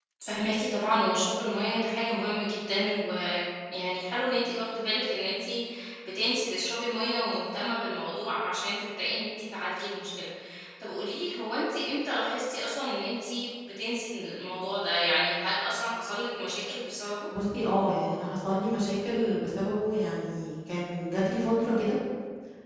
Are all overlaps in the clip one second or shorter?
Yes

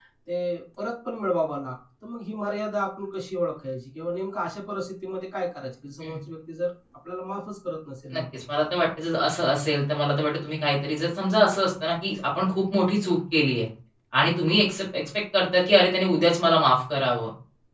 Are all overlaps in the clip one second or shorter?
Yes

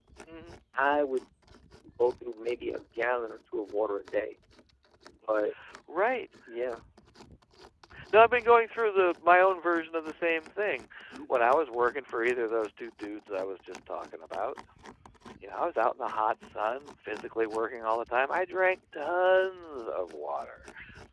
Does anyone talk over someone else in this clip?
No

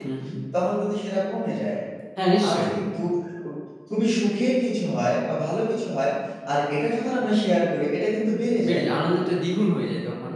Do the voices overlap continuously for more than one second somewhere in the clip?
No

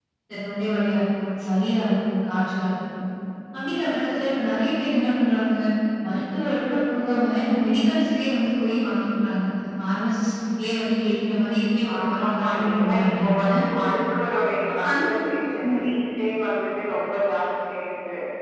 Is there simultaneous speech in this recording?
Yes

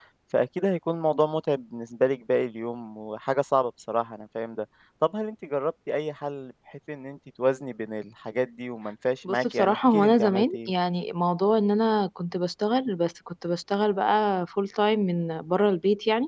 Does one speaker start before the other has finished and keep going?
Yes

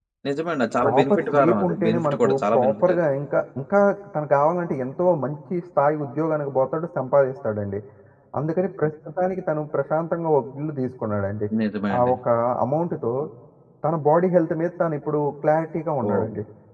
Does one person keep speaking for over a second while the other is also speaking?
Yes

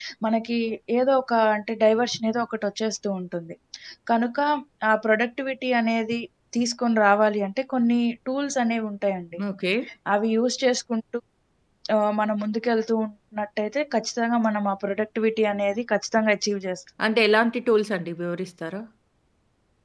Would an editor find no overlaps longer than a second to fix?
Yes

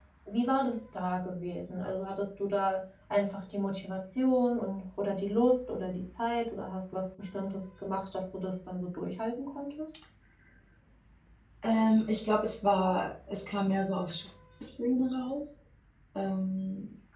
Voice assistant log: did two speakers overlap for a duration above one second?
No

